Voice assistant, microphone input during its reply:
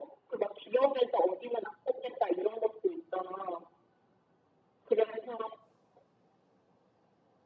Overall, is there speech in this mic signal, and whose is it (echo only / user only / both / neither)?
echo only